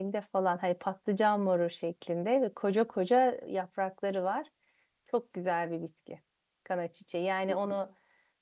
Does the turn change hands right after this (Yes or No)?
No